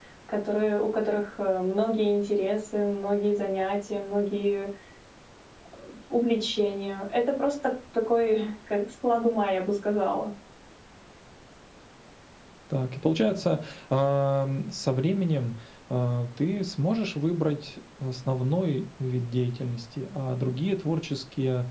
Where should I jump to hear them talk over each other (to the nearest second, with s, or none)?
none